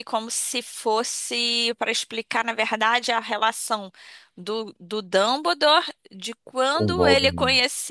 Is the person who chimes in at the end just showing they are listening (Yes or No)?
Yes